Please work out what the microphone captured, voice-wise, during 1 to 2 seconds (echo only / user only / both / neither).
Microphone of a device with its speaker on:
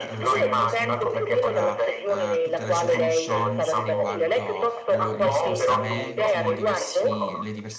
both